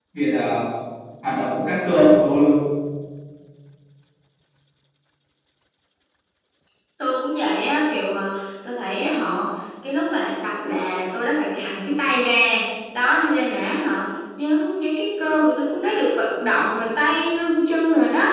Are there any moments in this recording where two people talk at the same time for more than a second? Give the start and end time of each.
none

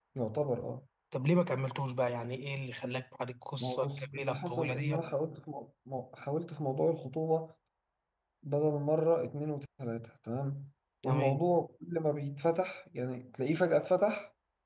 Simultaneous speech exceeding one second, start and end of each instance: 3.6-5.0

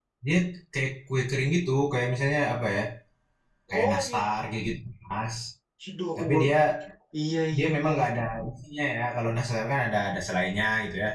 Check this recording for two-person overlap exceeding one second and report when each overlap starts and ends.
none

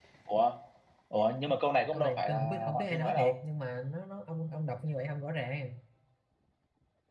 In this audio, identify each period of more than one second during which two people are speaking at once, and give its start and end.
1.9-3.3

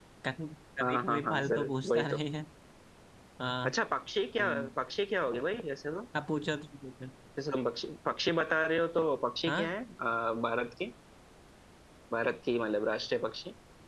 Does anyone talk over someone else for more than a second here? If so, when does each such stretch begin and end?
0.8-2.2

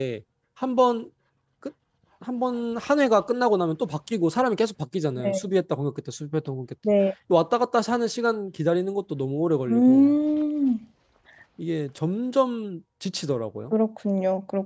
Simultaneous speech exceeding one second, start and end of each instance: none

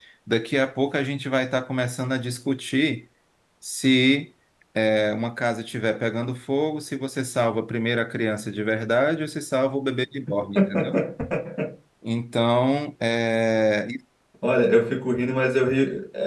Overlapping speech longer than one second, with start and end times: none

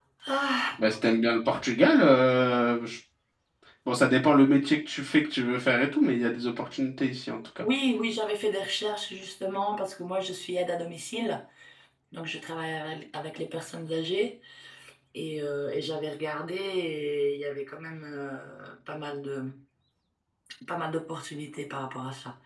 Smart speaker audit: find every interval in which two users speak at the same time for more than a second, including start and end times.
none

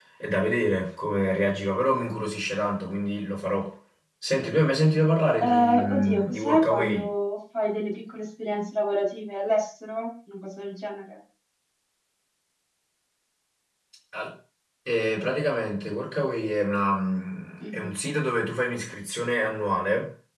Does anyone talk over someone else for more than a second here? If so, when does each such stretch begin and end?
5.4-7.1

